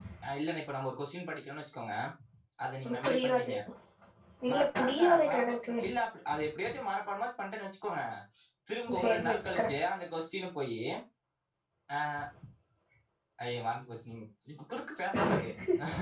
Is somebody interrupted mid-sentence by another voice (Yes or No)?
Yes